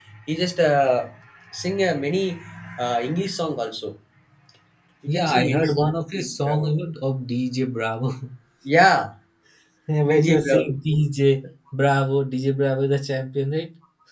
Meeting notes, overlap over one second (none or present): present